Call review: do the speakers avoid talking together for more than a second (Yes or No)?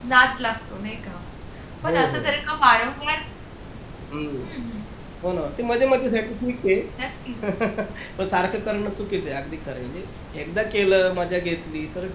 Yes